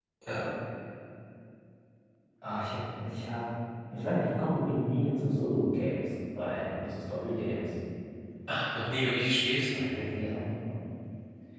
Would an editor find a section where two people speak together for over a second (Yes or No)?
No